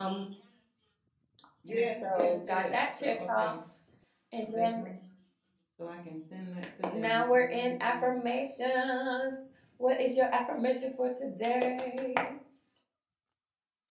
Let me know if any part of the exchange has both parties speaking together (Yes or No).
Yes